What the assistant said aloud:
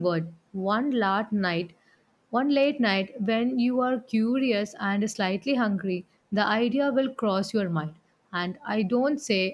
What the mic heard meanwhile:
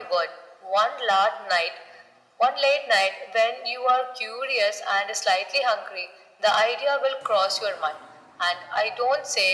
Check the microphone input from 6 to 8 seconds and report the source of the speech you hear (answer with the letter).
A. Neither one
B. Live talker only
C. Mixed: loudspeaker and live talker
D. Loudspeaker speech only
D